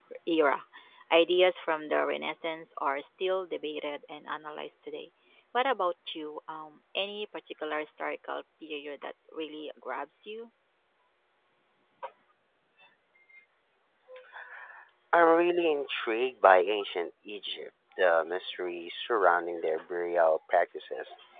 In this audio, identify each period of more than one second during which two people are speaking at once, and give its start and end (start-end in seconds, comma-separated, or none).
none